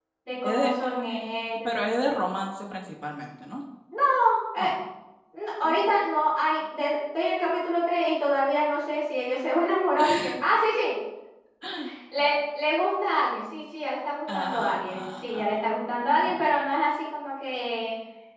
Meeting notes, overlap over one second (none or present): present